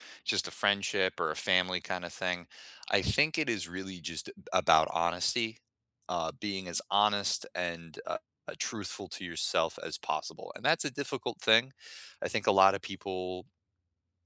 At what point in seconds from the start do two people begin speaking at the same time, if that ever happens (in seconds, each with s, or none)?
none